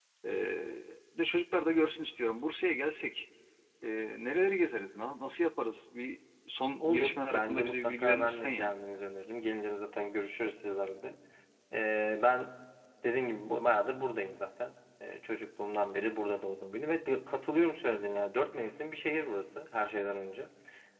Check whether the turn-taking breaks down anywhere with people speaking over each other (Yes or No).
Yes